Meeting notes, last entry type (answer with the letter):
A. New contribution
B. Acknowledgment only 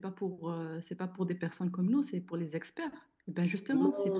A